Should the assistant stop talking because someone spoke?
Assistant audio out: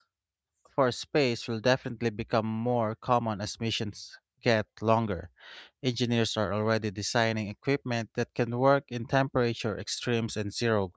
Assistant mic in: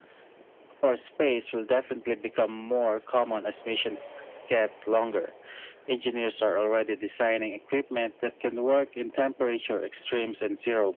No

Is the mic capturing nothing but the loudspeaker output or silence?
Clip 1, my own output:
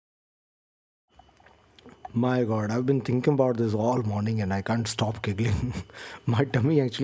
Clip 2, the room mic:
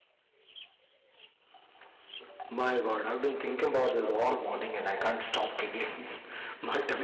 Yes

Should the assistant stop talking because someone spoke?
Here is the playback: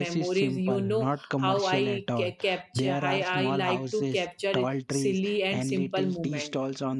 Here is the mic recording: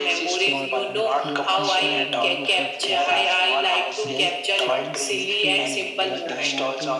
Yes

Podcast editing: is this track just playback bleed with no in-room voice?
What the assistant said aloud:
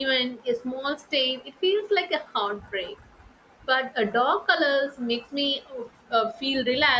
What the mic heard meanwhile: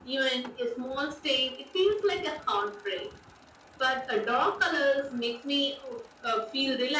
Yes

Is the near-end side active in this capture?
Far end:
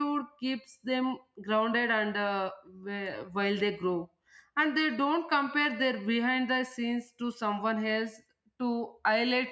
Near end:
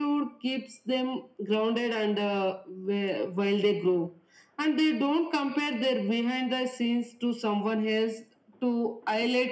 No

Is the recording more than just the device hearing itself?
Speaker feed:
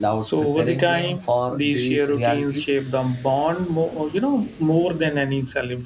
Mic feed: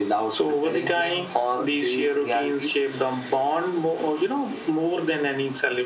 No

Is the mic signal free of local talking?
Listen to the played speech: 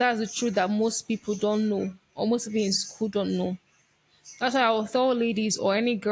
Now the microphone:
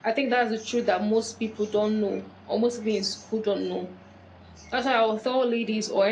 Yes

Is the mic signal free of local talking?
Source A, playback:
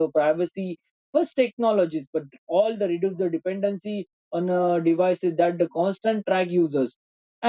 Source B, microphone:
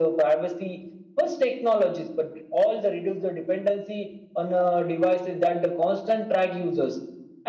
Yes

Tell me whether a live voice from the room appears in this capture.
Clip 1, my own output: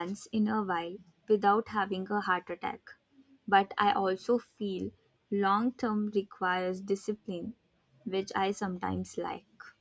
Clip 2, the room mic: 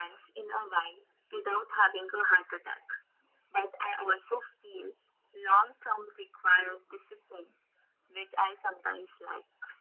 No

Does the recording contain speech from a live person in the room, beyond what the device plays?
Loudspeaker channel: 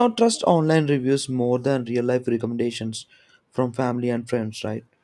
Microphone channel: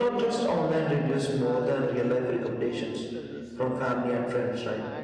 Yes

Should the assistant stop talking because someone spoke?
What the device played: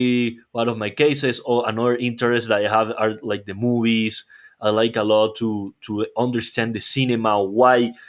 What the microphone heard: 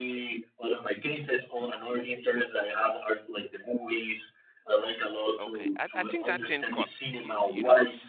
Yes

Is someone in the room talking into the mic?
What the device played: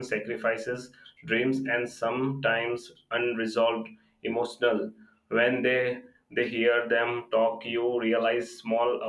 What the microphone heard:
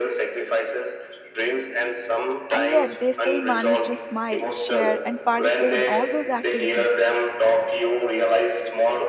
Yes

